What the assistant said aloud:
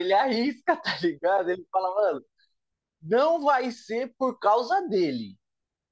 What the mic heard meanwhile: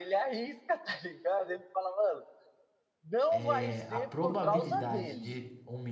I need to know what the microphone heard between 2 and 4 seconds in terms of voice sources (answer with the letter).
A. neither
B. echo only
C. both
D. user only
C